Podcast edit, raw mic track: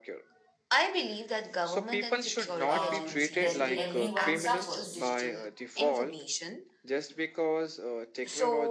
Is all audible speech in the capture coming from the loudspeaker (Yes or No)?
No